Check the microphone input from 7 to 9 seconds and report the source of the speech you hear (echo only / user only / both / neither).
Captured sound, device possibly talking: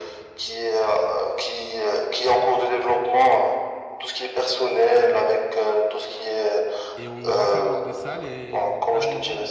both